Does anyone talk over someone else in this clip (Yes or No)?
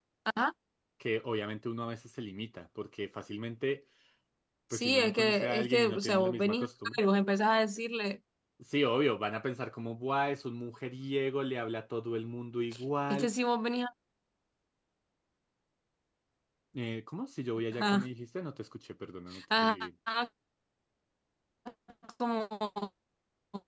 Yes